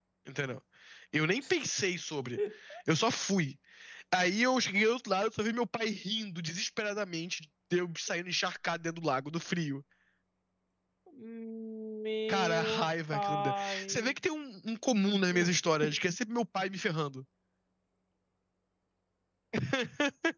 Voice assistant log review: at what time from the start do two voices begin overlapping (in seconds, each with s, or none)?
12.3 s